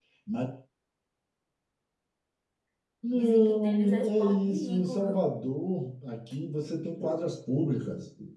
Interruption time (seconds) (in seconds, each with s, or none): 3.1 s